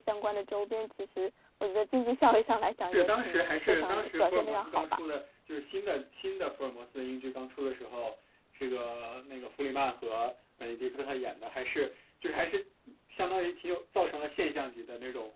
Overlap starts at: 2.9 s

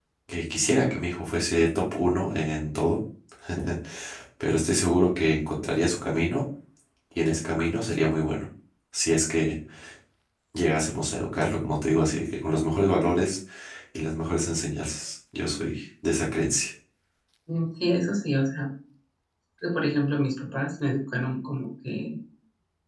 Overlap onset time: none

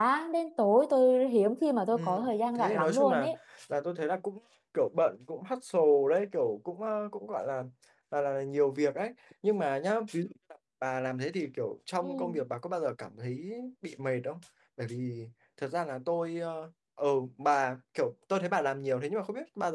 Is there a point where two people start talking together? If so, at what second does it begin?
1.9 s

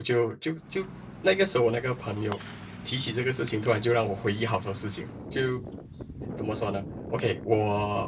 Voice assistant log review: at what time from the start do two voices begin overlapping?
none

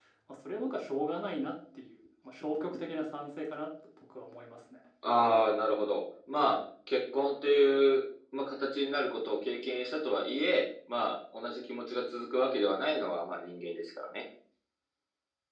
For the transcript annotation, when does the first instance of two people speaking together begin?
none

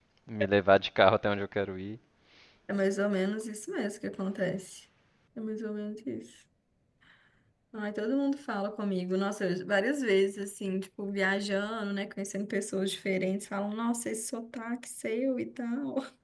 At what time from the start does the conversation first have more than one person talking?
none

